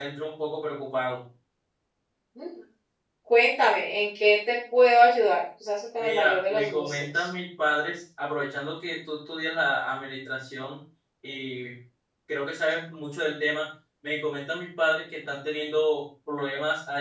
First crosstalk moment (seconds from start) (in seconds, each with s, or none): 6.0 s